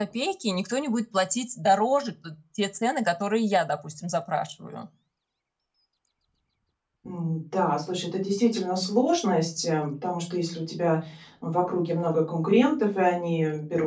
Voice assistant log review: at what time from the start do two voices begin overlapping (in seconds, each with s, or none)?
none